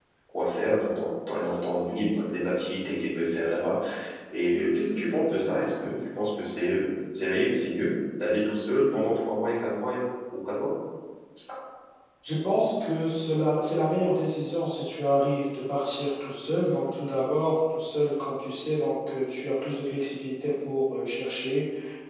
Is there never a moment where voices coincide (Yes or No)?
Yes